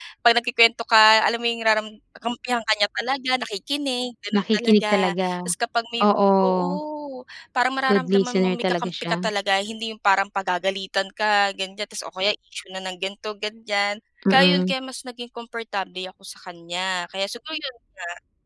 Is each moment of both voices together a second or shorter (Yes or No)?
No